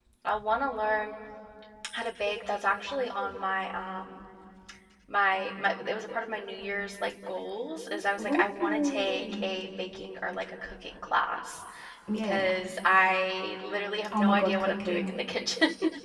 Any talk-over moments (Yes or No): Yes